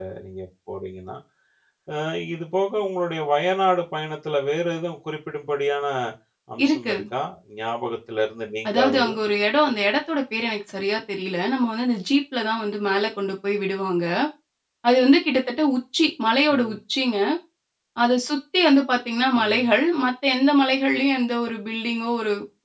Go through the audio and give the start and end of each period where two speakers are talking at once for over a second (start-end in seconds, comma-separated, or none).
none